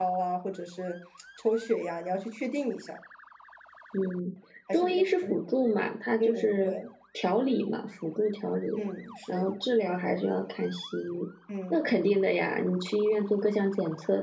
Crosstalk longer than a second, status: none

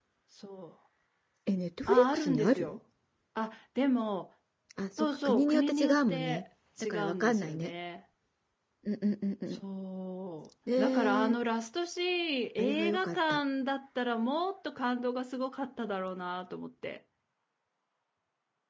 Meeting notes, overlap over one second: present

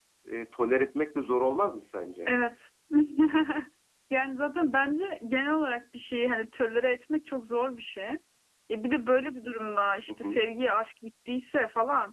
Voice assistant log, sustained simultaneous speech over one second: none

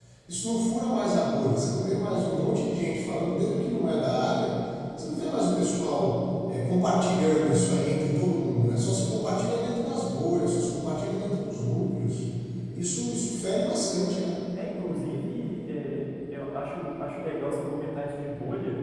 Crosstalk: none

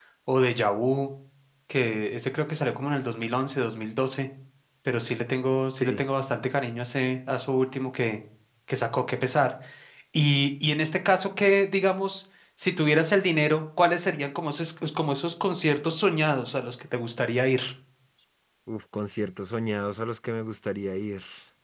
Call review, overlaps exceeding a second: none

